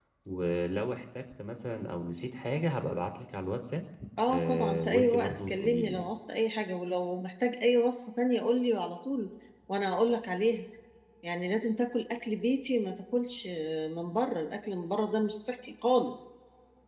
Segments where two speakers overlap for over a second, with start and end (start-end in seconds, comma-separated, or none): 4.3-6.1